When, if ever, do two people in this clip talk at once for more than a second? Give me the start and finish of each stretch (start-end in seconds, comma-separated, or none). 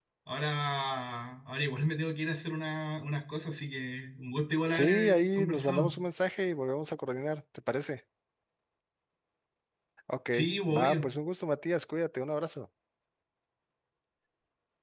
4.7-5.9